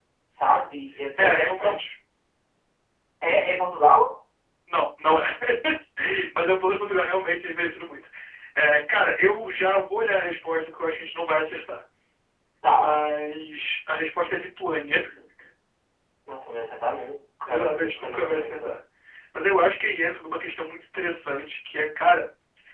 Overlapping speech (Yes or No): Yes